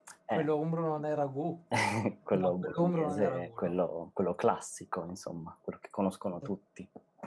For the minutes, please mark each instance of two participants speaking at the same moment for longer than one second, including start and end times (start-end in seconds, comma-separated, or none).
2.3-3.6